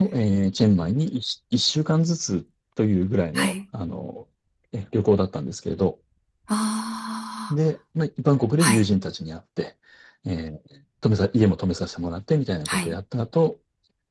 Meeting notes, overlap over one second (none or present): none